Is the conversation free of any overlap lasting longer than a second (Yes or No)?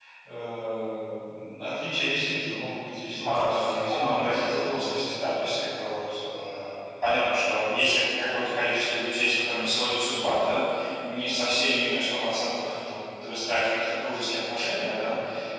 No